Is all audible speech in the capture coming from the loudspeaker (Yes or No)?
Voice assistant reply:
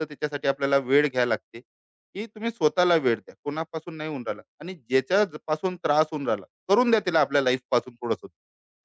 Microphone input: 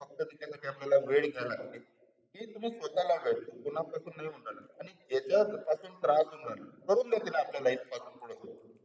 Yes